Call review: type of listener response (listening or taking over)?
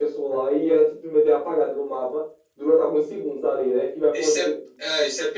taking over